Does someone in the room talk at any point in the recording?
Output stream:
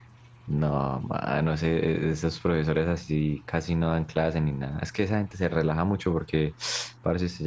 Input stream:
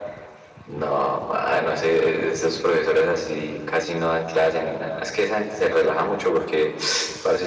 No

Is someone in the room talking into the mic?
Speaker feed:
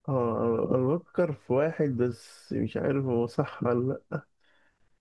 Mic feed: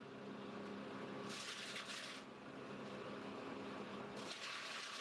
No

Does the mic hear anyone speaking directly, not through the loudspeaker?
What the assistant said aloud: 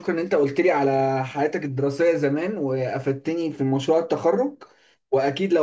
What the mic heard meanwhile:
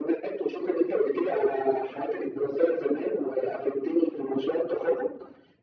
No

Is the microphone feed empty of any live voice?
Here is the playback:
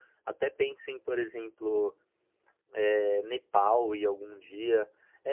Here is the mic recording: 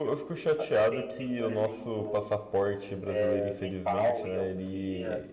No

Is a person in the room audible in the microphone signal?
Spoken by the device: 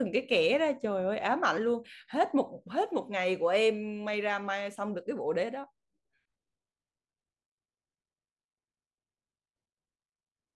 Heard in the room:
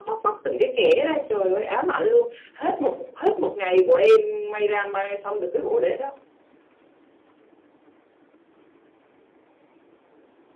No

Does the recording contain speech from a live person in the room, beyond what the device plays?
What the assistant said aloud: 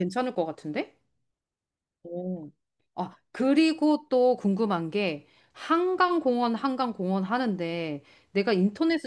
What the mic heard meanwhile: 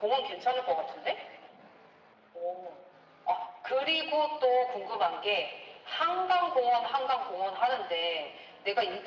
No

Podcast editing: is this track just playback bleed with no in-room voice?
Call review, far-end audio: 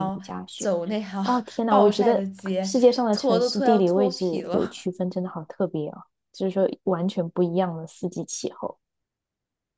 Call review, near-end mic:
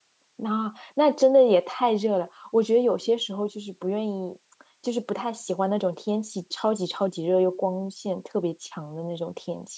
No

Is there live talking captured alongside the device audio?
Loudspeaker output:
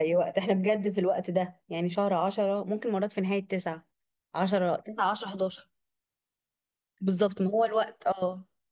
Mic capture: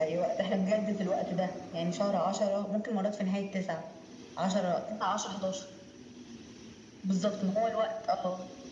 No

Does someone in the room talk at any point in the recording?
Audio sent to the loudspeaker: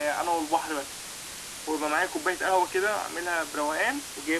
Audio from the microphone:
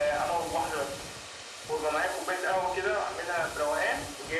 No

